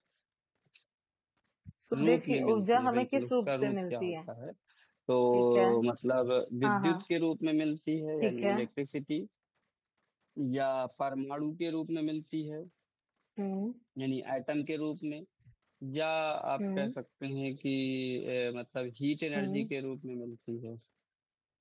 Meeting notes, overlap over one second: present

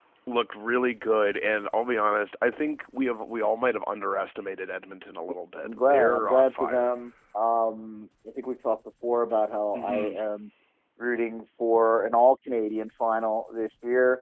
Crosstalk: present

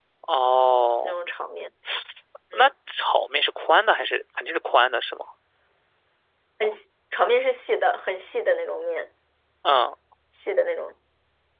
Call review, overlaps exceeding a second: none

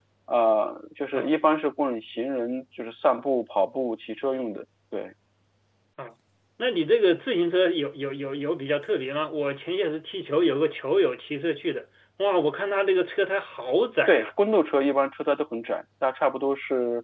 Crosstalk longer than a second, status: none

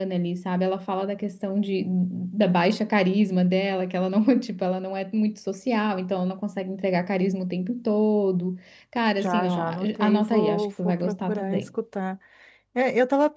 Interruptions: present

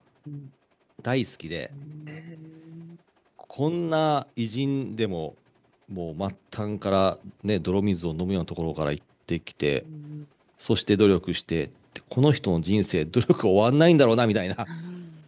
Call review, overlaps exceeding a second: none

